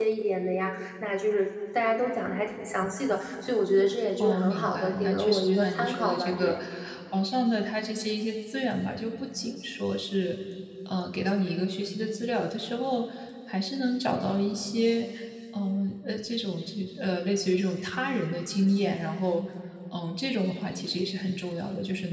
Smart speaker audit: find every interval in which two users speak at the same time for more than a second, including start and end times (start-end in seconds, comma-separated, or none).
4.2-6.6